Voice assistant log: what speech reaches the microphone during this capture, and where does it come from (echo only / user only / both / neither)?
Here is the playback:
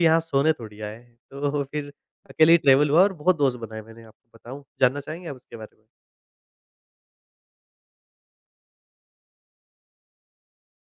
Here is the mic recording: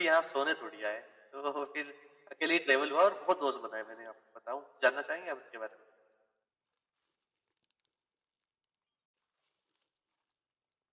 echo only